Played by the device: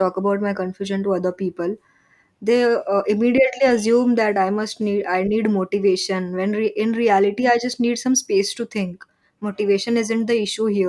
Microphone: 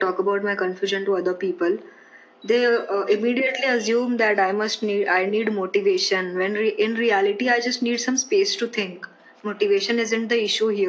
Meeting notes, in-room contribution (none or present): none